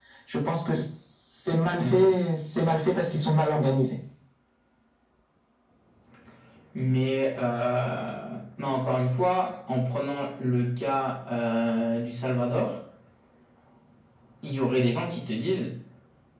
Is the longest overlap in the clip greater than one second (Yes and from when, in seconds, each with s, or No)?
No